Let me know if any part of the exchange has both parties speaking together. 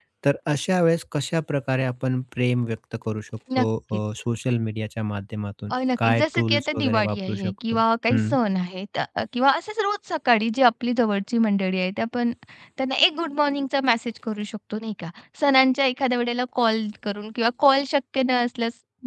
Yes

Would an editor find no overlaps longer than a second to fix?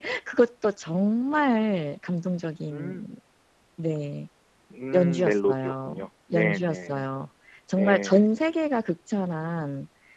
No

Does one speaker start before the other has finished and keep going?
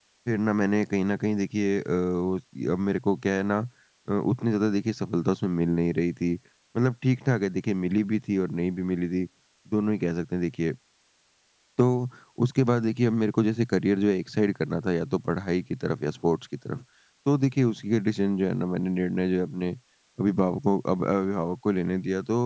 No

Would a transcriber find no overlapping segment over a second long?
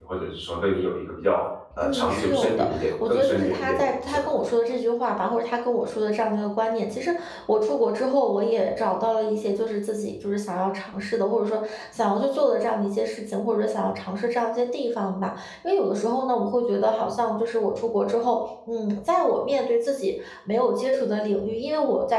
No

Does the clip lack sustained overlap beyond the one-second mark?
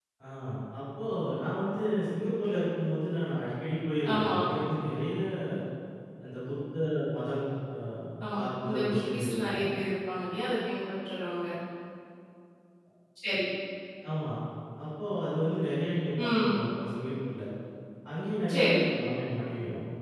No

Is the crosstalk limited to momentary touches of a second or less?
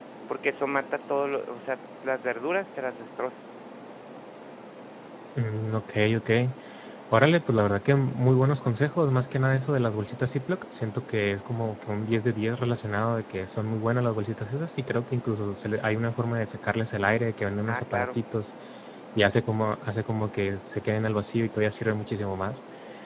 Yes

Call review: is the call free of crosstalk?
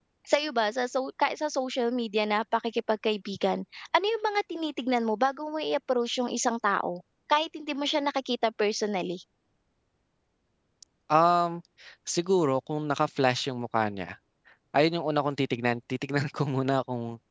Yes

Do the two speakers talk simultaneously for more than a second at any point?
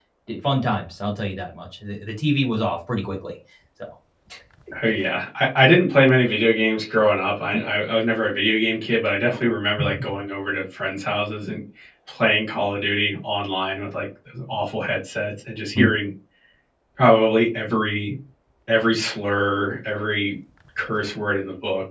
No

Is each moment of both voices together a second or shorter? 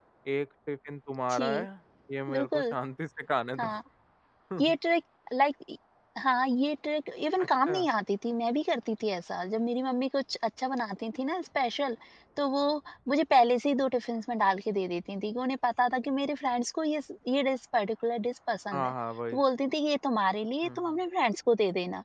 Yes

